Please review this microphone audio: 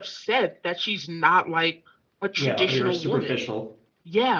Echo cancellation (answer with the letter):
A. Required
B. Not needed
A